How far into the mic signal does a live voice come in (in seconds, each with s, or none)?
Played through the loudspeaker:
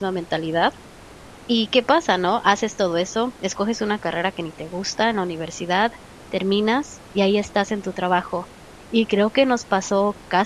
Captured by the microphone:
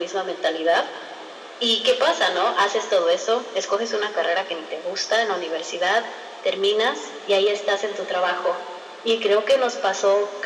none